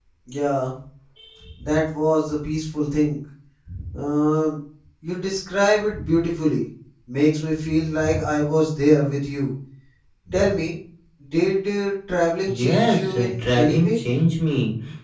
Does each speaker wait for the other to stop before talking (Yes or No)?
No